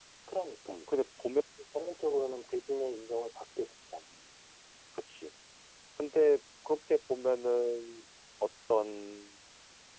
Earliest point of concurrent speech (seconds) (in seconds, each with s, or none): none